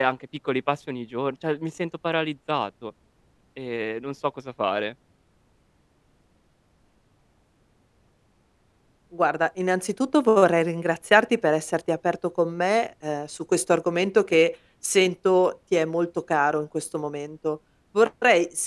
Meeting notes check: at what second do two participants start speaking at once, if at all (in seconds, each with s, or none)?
none